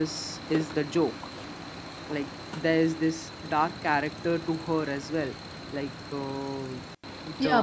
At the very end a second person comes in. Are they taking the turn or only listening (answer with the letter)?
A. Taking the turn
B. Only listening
A